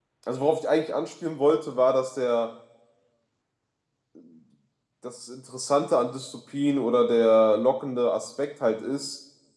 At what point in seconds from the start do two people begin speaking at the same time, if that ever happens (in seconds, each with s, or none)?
none